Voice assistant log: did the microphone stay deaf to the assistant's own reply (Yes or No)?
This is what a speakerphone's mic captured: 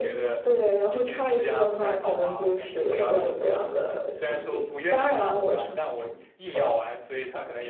No